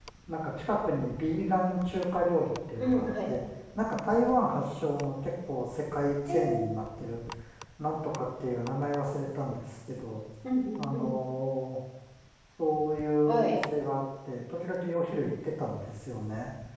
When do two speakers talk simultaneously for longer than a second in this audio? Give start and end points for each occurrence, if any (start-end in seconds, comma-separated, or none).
none